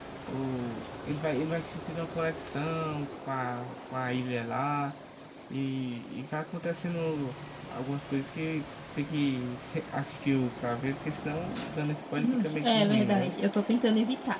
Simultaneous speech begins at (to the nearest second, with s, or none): 12 s